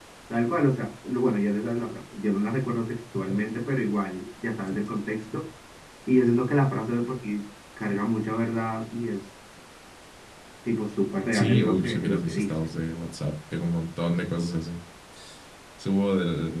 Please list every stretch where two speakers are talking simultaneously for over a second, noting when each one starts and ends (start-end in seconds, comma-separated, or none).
11.3-12.7